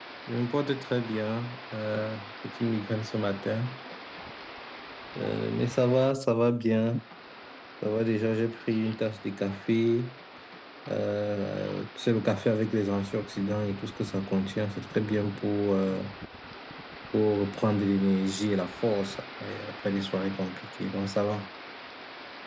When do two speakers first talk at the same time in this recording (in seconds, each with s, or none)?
none